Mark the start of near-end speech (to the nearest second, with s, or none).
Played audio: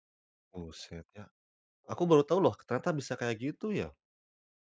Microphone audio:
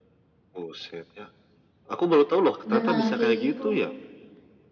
3 s